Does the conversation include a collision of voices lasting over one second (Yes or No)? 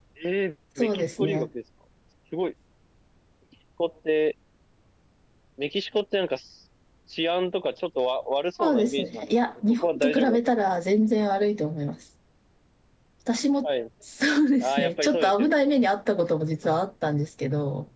Yes